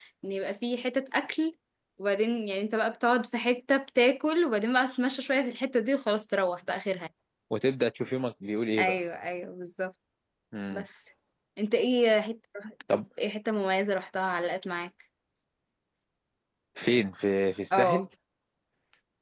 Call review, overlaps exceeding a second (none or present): none